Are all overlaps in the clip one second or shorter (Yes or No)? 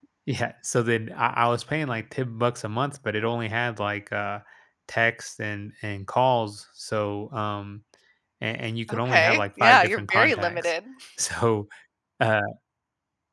No